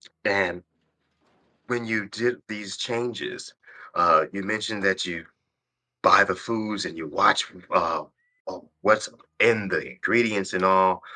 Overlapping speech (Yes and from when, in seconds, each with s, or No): No